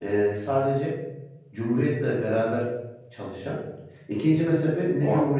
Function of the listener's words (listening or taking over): listening